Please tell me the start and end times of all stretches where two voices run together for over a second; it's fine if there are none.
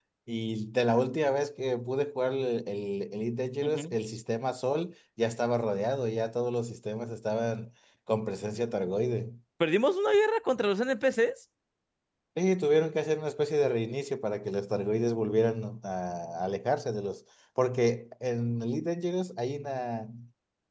none

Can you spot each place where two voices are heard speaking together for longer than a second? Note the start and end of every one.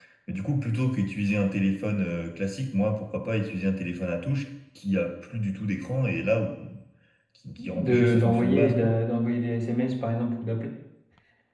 7.6-9.0

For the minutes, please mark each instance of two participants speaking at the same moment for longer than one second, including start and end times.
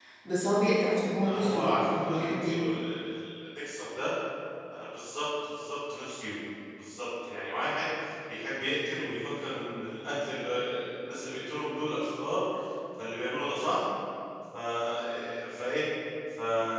1.2-2.8

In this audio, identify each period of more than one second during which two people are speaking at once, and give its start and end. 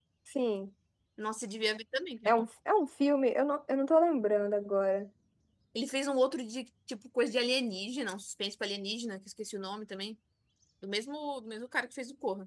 none

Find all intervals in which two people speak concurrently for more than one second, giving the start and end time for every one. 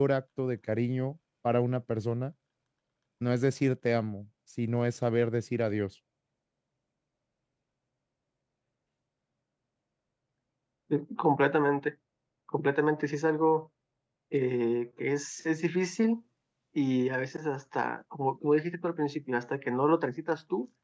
none

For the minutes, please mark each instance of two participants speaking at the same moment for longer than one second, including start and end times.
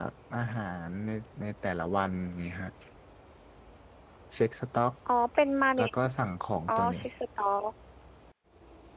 none

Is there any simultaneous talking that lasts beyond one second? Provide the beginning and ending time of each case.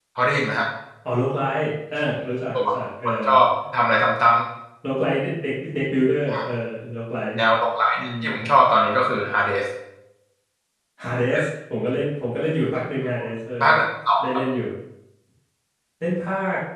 none

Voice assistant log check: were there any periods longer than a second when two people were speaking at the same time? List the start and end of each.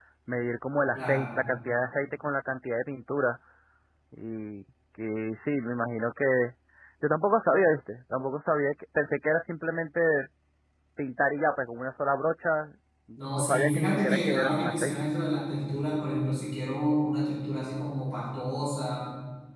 13.3-14.9

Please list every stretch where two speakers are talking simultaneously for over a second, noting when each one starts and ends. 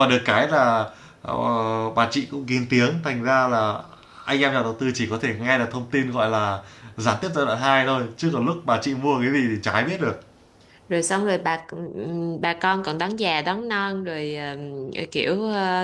none

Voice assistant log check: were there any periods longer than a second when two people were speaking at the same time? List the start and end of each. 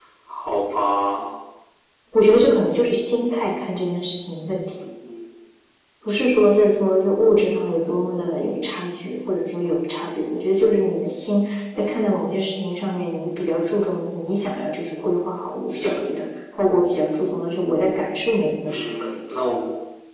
none

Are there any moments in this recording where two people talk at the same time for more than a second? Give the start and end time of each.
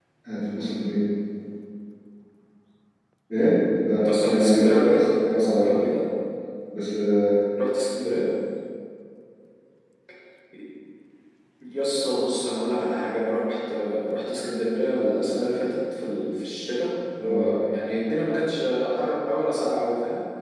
4.0-5.8

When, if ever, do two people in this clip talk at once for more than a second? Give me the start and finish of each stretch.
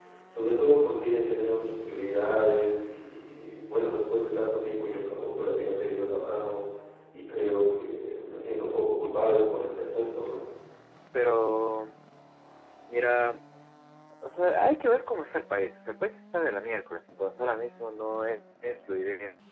none

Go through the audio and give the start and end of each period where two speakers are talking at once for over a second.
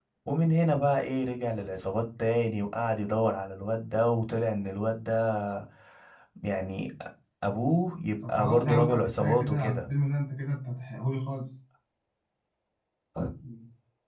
8.3-9.9

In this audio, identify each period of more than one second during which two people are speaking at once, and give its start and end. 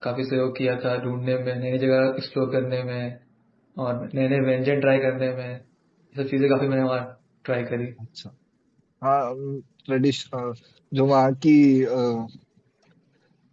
none

